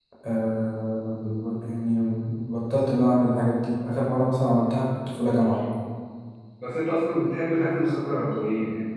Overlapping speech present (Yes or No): No